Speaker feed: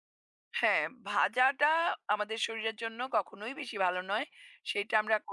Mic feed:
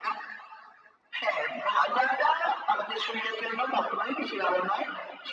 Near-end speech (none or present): none